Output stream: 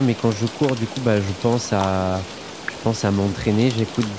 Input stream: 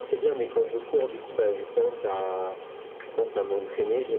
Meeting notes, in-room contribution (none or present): none